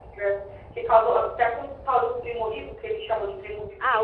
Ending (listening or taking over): taking over